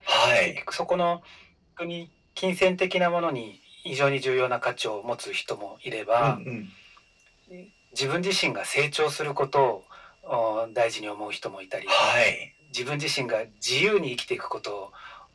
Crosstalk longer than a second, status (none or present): none